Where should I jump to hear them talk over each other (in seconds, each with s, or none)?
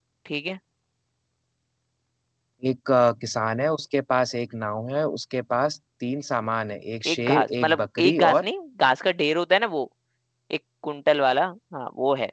7.0 s